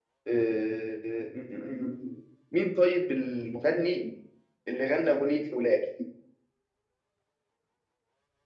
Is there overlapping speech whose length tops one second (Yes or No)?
No